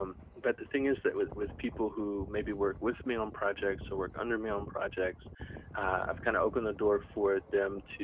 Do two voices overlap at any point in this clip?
No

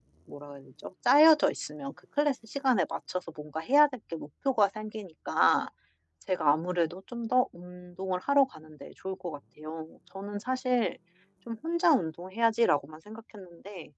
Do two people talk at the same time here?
No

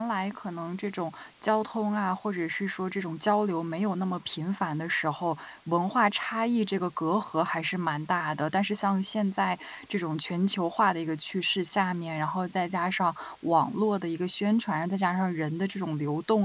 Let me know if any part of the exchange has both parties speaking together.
No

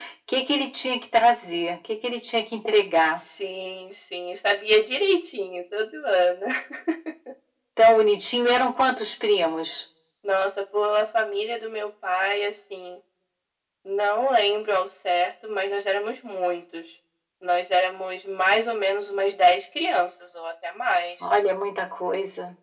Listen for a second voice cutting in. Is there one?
No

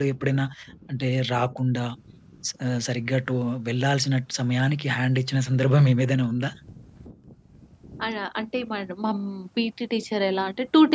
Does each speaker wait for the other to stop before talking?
Yes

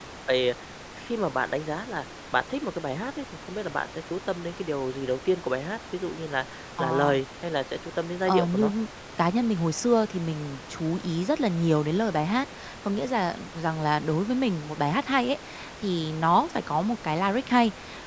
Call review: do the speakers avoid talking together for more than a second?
Yes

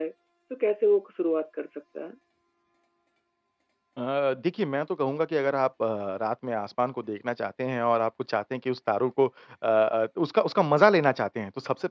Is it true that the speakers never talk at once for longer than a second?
Yes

